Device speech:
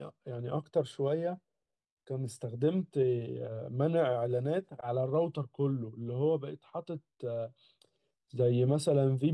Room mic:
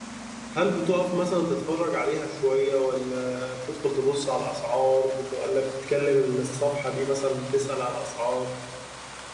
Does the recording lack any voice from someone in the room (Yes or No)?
No